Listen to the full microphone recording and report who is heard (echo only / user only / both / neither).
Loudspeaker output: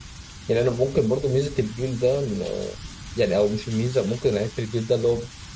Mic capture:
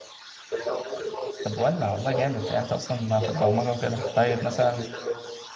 both